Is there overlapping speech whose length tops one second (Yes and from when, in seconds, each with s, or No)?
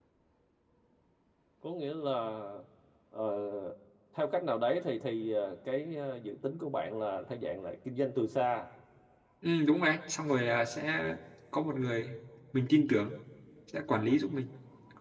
No